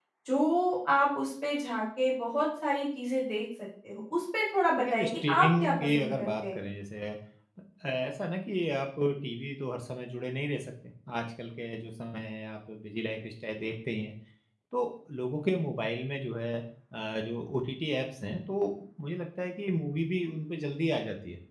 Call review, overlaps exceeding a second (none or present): present